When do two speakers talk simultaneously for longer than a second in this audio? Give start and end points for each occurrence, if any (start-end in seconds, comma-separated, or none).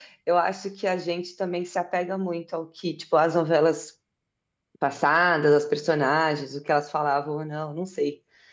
none